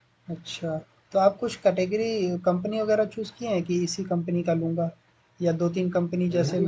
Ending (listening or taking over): taking over